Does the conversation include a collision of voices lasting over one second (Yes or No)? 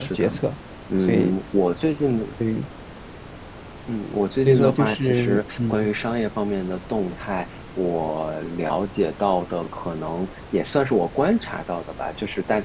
Yes